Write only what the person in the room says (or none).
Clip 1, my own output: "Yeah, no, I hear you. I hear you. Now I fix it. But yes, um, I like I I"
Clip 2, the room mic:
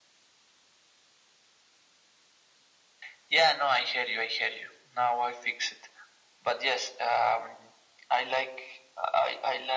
none